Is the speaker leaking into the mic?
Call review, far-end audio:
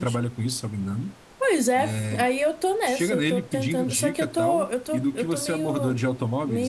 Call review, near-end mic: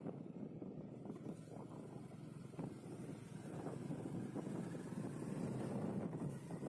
No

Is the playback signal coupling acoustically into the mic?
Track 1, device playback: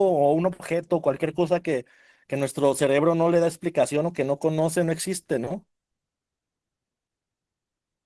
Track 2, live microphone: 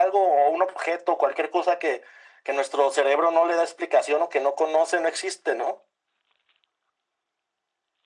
Yes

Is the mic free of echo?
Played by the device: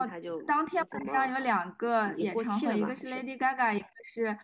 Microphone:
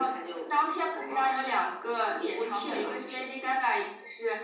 No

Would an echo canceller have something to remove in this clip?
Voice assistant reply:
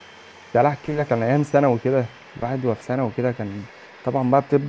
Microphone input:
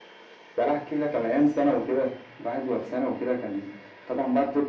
Yes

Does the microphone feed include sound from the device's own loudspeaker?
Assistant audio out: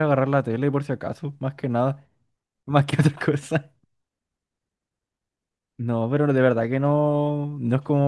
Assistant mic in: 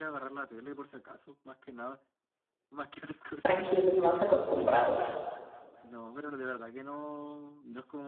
Yes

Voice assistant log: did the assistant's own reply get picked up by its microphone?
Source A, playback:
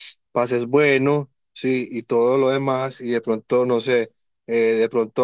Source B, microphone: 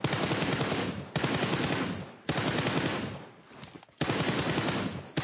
No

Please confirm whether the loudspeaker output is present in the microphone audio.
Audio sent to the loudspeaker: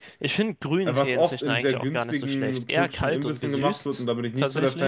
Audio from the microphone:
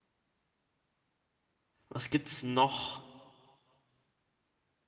No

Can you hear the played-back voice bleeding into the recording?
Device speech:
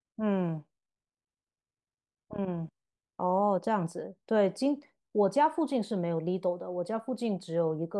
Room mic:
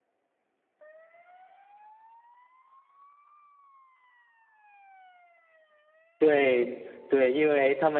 No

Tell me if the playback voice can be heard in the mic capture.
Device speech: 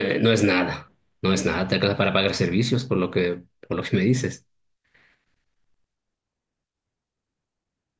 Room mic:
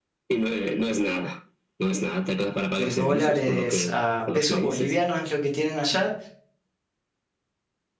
Yes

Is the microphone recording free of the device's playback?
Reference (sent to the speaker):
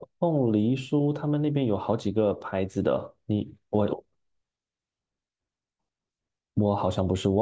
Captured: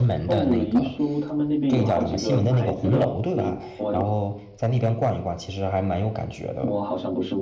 No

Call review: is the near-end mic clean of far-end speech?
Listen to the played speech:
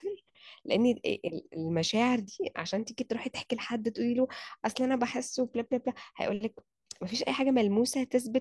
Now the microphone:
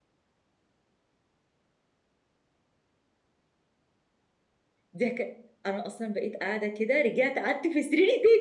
Yes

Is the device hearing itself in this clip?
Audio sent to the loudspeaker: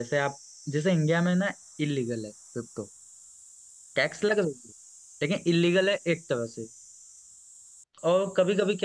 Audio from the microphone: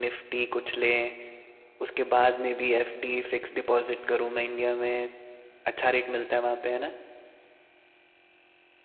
No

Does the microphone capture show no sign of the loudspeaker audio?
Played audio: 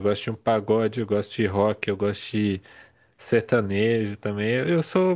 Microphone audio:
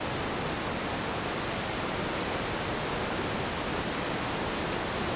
Yes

